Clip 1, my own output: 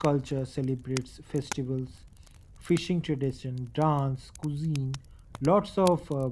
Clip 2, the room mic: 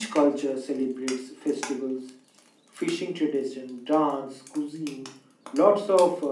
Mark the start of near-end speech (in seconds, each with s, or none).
none